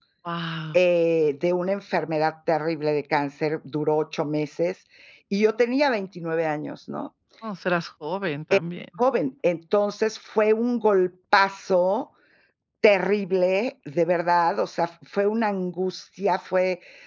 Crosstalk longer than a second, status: none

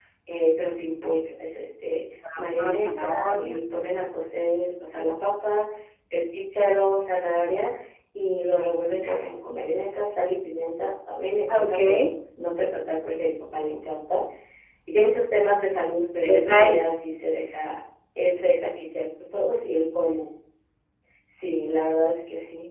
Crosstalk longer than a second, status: present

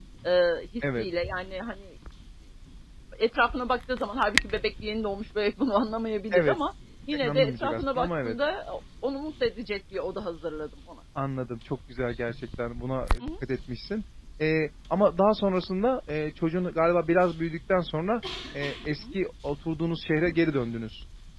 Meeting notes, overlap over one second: present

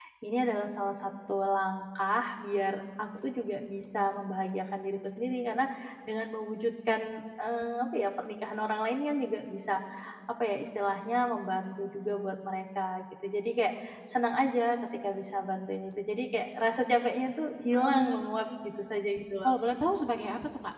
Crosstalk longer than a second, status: none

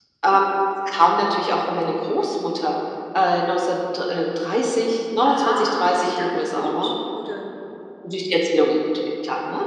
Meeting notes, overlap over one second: present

